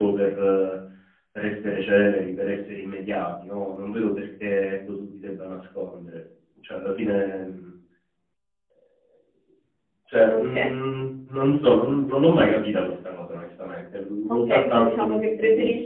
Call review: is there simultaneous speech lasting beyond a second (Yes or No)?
Yes